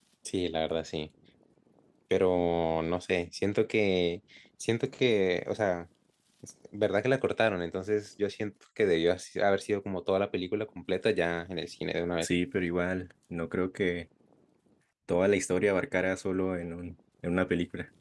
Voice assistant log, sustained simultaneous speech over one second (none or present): none